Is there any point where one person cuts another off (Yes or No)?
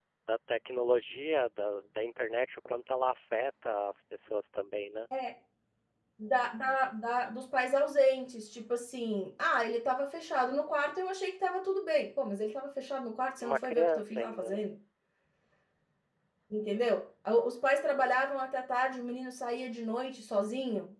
Yes